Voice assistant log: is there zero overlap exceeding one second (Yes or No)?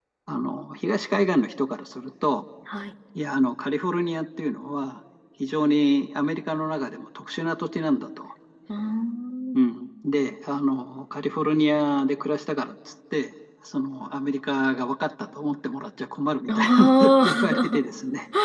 No